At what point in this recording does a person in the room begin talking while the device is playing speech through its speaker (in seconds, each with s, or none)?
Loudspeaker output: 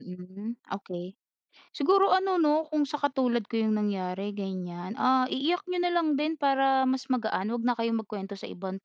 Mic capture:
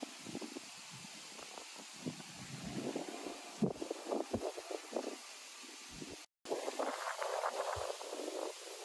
none